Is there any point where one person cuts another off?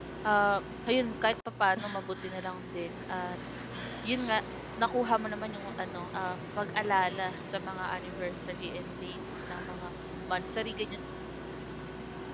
No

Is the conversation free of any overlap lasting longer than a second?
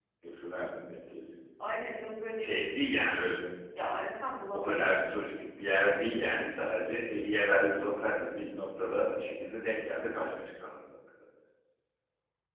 Yes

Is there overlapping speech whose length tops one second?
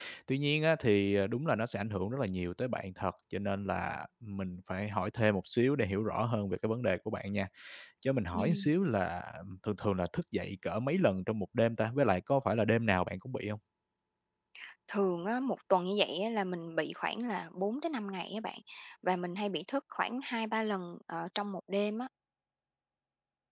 No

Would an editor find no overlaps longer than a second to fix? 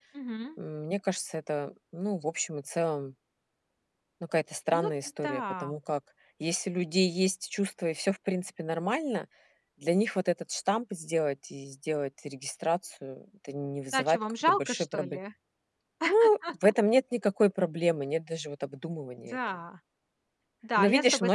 No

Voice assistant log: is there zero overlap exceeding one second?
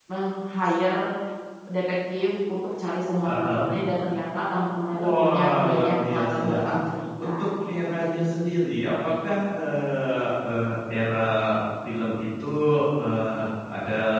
No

